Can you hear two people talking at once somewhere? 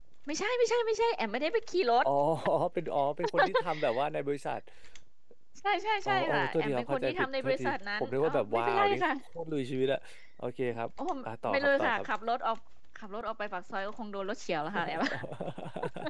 Yes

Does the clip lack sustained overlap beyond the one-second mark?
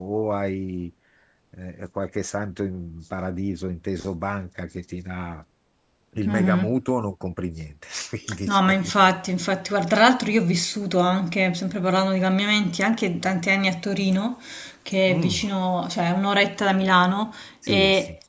Yes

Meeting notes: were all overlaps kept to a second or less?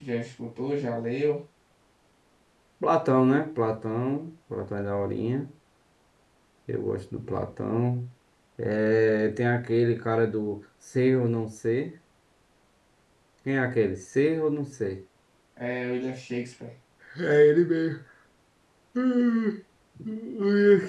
Yes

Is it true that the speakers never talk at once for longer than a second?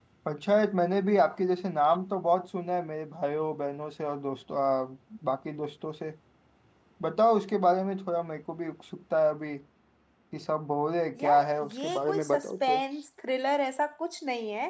No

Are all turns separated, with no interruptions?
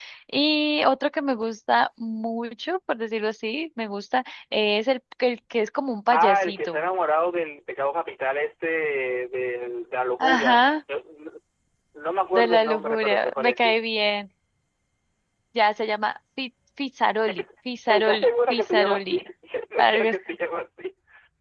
No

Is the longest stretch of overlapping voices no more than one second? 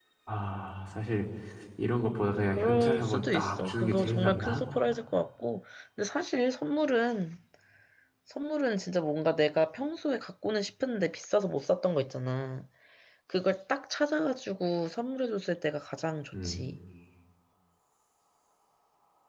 No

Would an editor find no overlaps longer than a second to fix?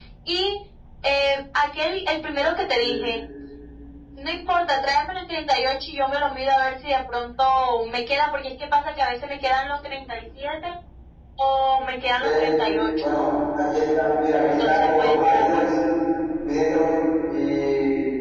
No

